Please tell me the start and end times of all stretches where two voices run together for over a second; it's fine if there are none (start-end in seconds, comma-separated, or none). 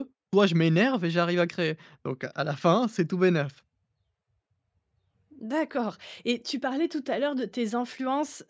none